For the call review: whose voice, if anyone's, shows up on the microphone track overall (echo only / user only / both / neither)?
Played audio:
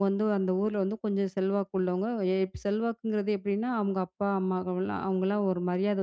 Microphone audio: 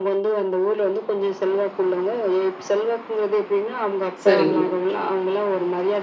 both